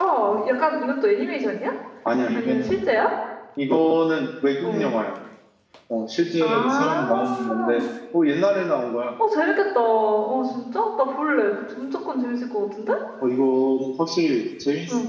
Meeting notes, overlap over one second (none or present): present